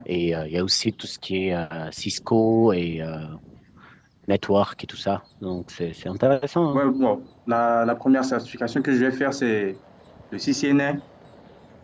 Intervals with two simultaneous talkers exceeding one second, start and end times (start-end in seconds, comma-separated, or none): none